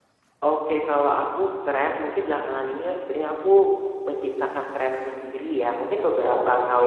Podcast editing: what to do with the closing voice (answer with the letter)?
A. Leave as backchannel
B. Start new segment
A